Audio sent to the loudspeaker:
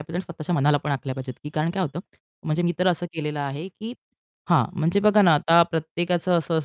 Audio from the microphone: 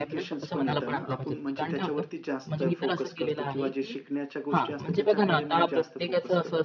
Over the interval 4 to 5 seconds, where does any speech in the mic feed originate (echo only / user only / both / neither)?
both